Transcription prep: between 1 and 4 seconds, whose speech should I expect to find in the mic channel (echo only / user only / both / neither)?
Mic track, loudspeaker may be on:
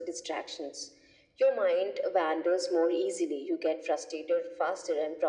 echo only